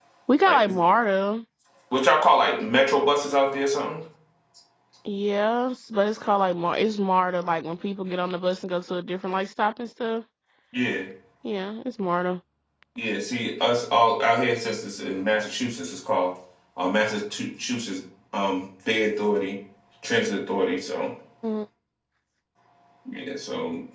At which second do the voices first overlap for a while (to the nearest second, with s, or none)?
none